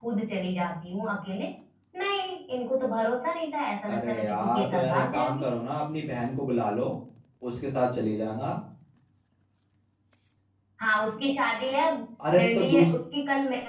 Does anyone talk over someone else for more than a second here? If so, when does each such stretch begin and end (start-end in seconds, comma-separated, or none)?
3.9-5.5